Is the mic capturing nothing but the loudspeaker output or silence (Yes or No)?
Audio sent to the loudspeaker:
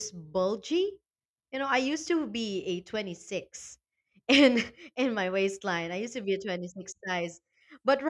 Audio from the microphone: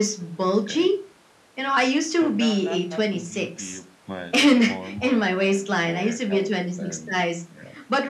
No